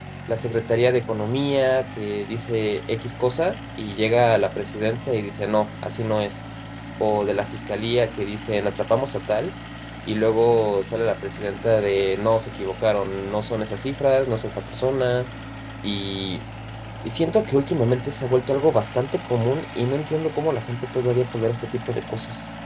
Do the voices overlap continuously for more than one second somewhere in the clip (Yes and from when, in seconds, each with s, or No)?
No